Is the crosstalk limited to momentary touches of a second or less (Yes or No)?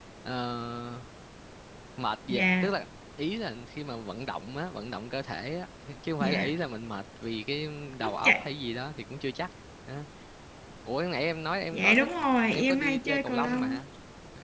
No